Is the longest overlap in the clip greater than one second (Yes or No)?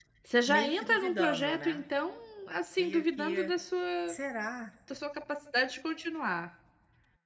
Yes